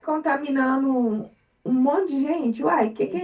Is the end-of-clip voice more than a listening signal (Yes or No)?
Yes